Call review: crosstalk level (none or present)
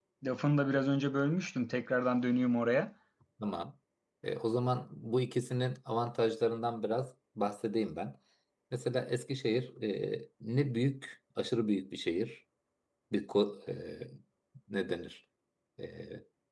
none